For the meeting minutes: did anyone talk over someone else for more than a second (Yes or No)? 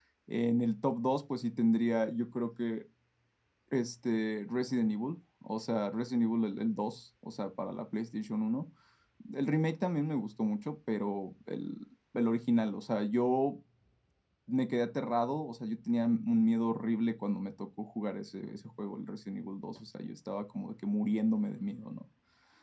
No